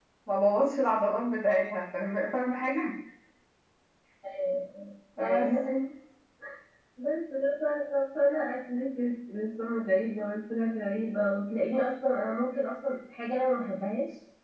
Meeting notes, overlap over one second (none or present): none